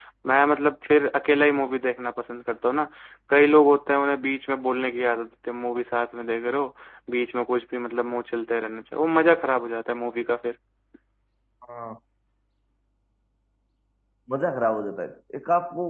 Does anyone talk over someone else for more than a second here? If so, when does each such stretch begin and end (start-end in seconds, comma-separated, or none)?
none